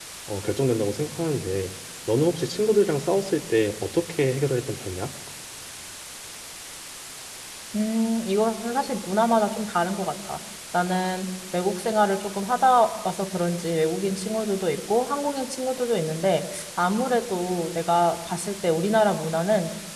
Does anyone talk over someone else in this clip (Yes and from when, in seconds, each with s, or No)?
No